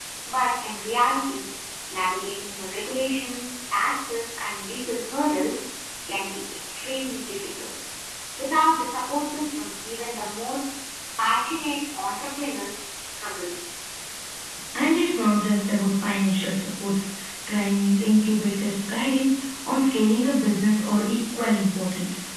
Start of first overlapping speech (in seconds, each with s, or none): none